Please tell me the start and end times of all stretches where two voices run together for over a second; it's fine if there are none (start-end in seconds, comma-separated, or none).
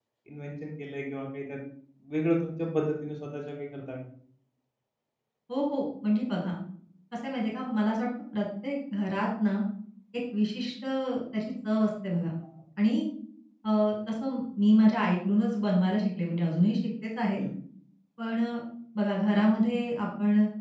none